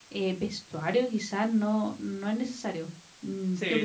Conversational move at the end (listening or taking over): taking over